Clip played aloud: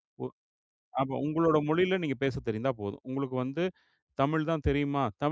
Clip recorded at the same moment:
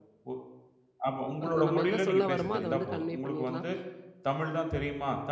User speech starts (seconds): 1.5 s

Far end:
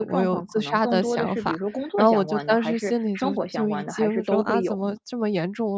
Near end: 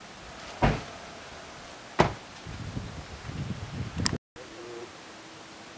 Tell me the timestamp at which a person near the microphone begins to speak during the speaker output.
none

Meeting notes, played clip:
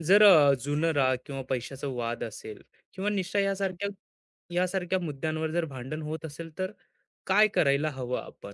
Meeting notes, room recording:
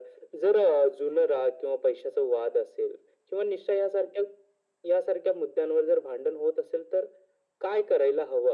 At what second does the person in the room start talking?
none

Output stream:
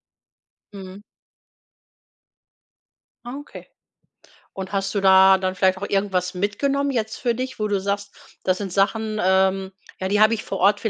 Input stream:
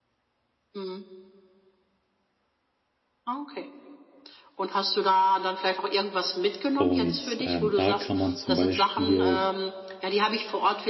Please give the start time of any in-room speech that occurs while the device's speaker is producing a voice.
6.8 s

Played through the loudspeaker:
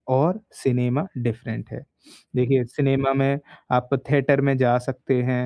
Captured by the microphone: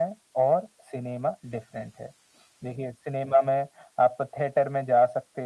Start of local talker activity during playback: none

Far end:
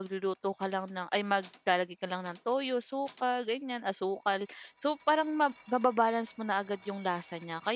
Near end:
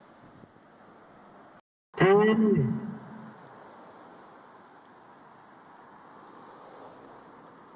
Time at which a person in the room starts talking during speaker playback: 2.0 s

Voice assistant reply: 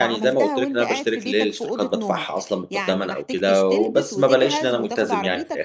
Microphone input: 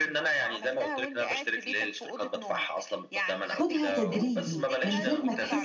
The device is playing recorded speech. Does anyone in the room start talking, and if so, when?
3.4 s

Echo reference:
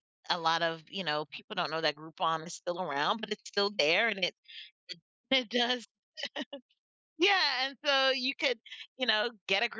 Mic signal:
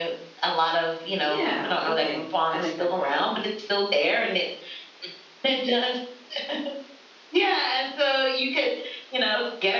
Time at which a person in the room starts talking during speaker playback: 1.2 s

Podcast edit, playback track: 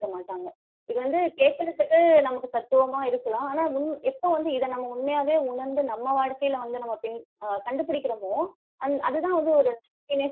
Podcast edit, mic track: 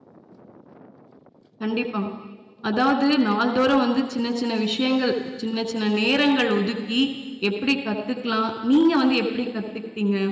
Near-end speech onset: 1.6 s

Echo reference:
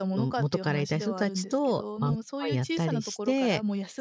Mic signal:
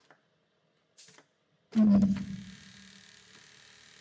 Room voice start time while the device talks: 1.7 s

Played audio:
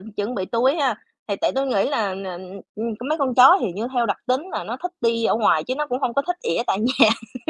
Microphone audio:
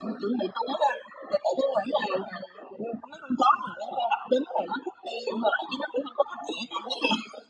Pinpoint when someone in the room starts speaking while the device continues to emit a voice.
none

